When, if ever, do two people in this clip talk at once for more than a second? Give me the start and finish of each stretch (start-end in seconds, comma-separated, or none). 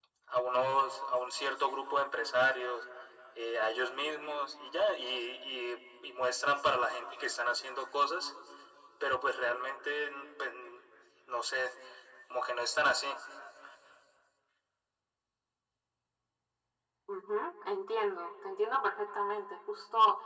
none